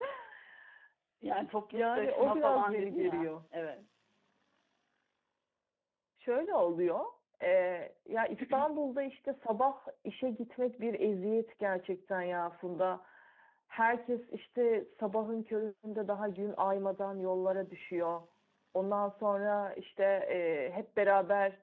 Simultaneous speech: Yes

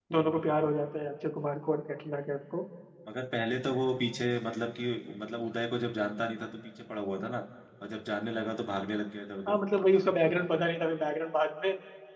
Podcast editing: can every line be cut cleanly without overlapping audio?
Yes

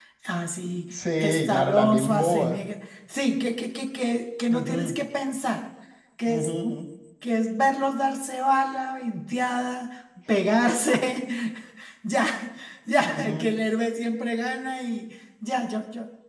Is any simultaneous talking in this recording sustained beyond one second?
Yes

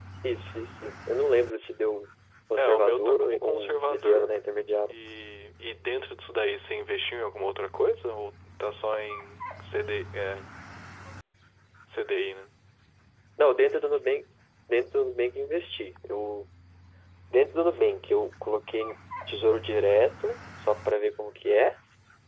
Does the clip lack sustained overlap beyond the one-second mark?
No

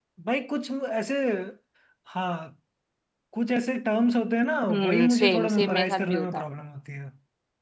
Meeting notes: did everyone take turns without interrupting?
No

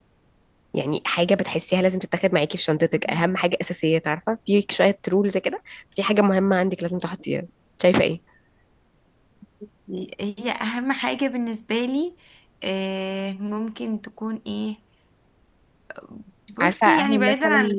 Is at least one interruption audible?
Yes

